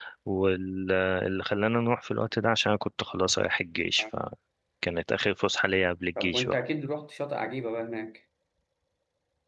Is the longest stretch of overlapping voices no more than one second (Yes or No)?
Yes